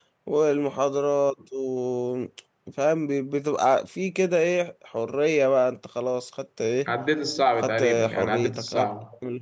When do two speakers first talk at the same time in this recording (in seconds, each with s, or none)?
7.6 s